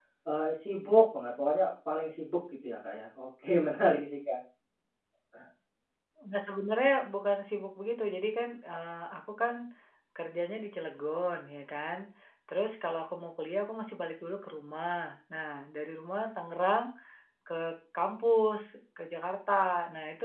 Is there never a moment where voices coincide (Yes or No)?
Yes